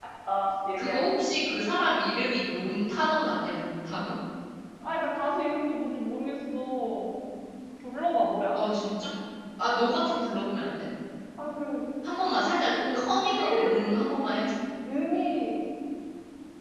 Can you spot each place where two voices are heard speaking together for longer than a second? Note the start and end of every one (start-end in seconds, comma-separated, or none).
none